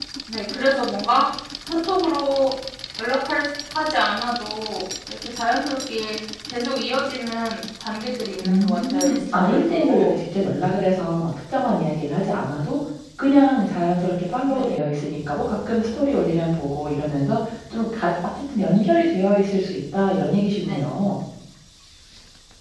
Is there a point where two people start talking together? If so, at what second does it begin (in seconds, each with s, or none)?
8.4 s